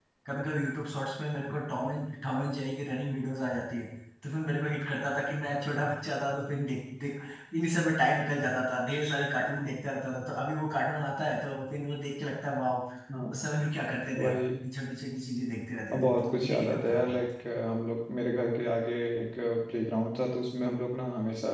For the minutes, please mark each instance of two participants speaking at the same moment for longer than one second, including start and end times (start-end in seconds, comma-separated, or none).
15.9-17.2